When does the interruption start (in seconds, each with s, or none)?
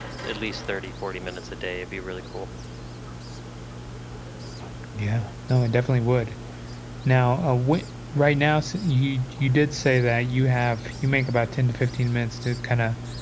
none